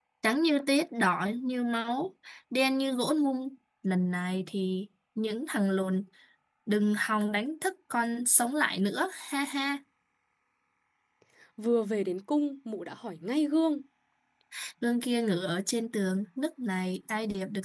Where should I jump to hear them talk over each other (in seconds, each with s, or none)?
none